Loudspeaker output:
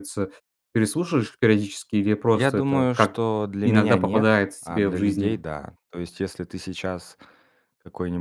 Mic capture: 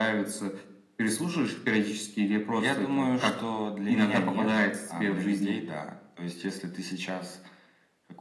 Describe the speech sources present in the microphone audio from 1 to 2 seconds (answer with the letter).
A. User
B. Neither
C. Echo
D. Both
C